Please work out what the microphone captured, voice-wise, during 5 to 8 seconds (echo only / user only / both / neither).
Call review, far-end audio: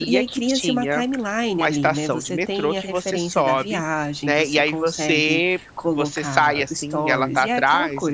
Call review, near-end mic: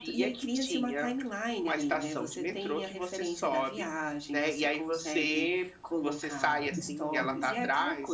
both